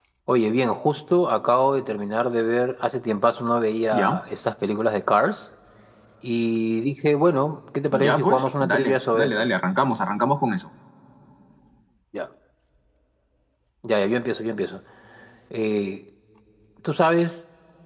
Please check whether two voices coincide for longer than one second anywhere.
Yes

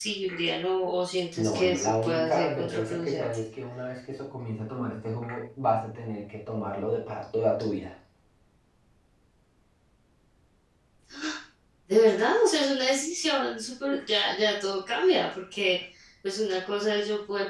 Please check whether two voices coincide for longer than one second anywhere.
Yes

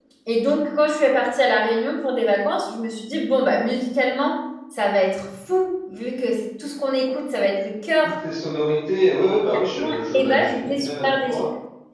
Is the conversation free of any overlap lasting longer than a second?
No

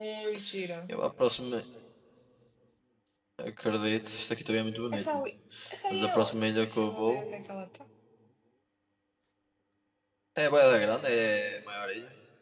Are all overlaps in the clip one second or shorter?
No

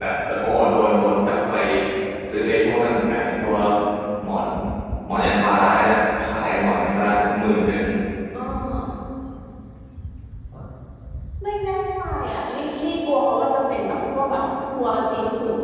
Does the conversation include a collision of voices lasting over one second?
No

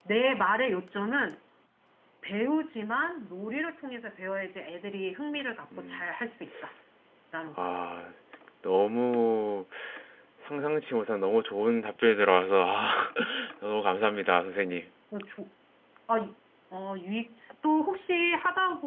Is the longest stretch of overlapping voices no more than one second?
Yes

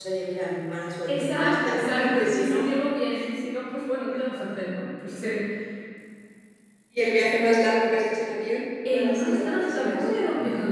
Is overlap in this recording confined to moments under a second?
No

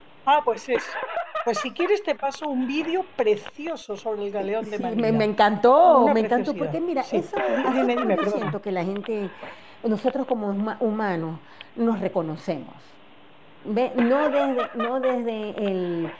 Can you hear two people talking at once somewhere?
Yes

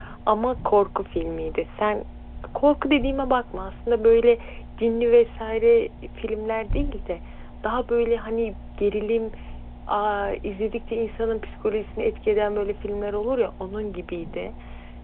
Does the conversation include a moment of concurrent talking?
No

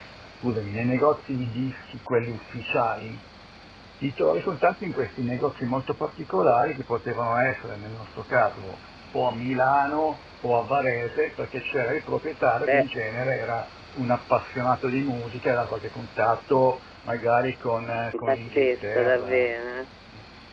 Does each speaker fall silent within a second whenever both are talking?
No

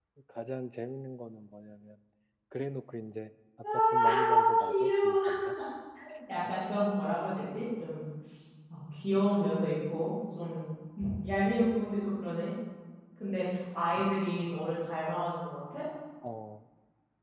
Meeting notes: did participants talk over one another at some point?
Yes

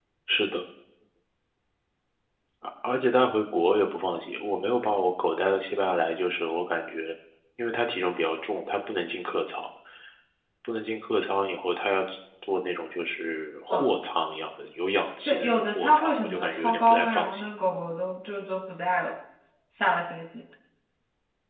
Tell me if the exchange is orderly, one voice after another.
No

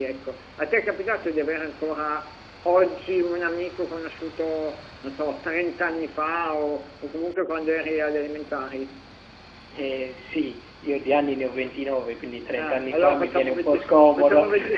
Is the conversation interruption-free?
No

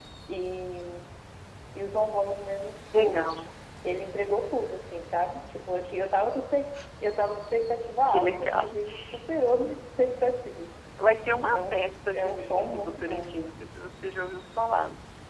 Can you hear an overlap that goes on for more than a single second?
Yes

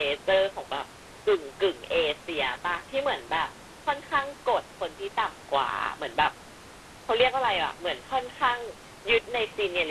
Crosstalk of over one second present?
No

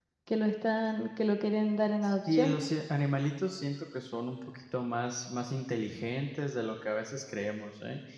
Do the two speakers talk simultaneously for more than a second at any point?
No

